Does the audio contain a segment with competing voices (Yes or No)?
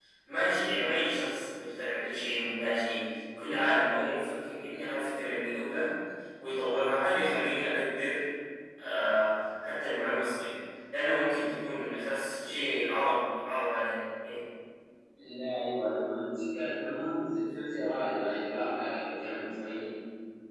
No